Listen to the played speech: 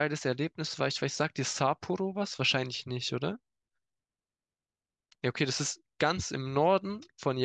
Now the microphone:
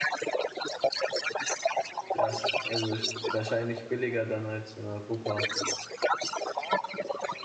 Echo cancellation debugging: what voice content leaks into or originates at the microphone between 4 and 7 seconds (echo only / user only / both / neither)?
both